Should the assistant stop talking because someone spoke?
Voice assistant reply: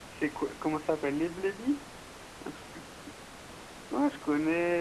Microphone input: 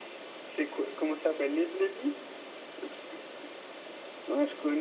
No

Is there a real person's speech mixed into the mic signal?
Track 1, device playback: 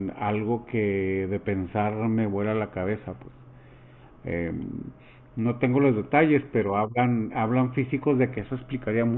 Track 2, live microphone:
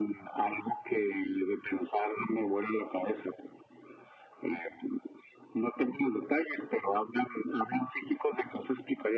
No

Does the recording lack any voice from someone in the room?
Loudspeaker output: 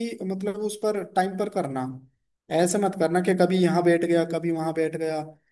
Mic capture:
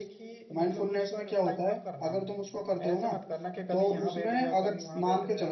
No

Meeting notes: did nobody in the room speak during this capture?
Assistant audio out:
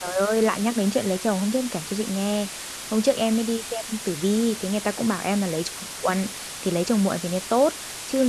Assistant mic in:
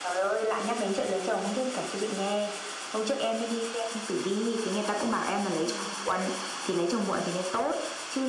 No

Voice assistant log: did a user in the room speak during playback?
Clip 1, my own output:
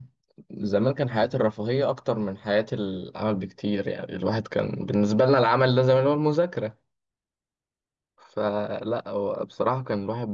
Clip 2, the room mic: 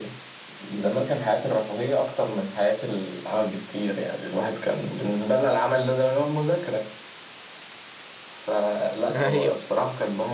Yes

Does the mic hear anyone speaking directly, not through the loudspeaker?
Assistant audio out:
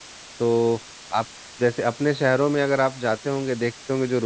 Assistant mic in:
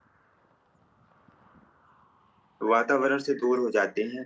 Yes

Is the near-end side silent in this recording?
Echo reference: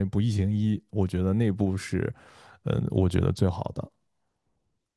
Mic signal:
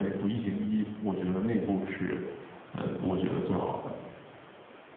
Yes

